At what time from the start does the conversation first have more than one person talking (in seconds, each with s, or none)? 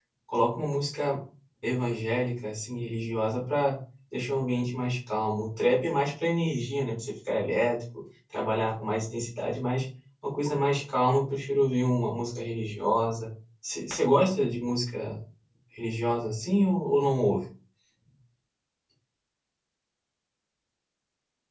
none